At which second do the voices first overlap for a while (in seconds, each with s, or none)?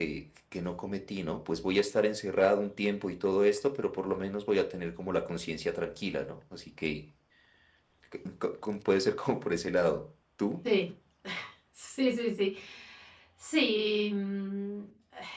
none